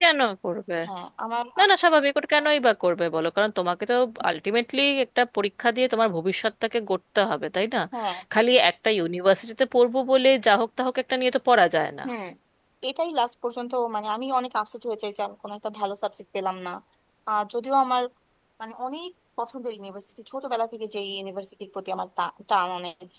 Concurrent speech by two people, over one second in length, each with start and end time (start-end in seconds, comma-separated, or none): none